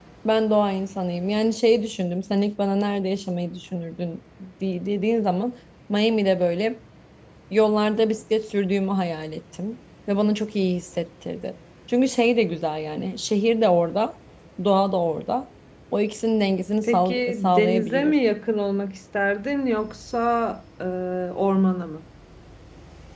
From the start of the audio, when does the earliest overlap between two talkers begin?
16.8 s

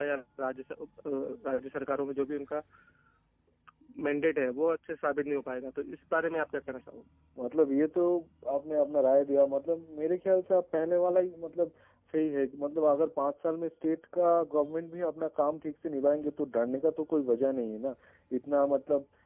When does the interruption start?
none

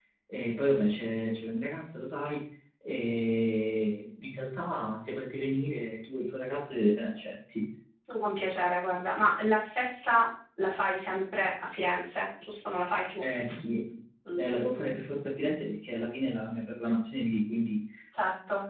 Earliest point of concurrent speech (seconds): none

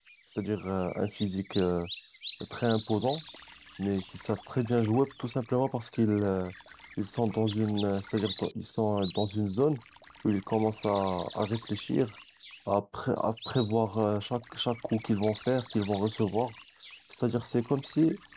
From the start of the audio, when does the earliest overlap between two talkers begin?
none

